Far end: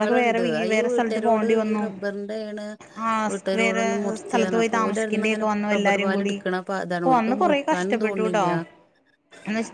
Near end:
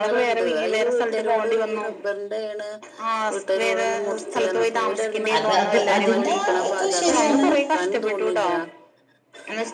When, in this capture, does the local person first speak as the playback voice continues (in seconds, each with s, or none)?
5.4 s